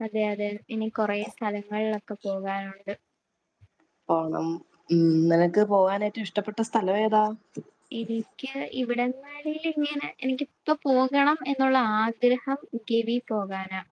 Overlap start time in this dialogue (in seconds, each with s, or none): none